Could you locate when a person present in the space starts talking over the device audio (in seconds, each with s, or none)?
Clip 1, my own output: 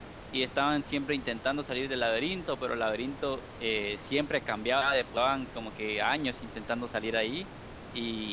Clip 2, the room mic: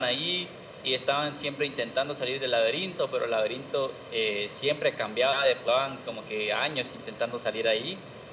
none